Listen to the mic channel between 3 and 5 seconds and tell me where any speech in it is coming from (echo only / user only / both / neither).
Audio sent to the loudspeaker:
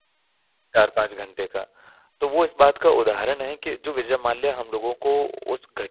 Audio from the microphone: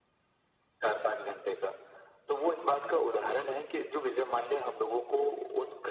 echo only